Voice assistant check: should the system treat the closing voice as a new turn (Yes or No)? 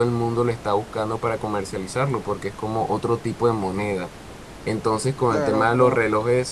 No